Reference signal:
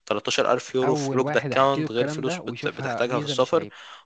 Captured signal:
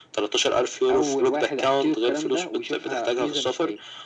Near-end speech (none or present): none